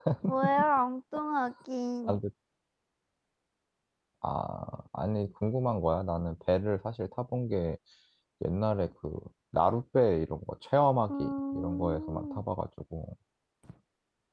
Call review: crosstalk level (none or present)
present